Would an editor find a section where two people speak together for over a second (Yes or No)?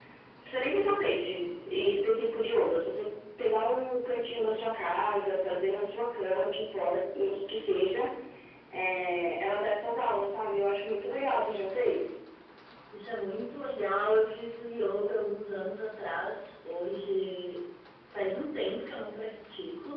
No